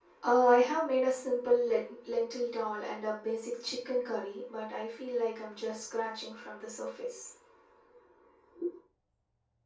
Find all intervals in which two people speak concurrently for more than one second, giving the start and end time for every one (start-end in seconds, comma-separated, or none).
none